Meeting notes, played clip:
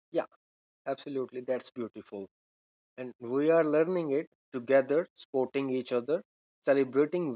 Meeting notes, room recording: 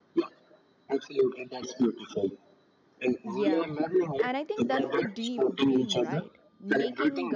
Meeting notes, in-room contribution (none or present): present